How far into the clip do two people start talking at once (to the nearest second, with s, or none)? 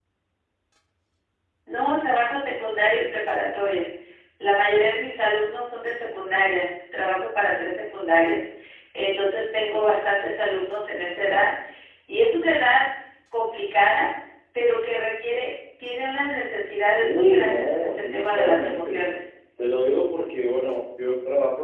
17 s